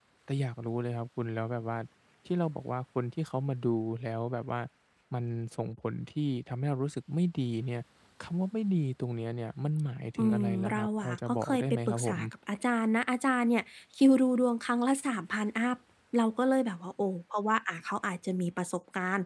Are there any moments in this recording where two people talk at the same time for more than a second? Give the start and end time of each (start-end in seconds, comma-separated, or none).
10.2-12.2